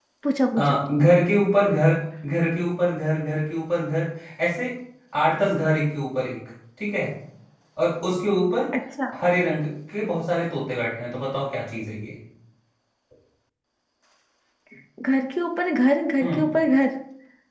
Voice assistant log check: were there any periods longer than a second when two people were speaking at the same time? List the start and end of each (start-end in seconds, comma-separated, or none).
none